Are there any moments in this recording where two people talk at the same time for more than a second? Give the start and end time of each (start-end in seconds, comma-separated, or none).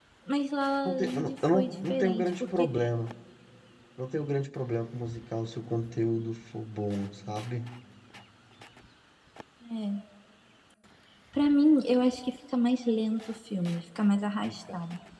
0.8-2.7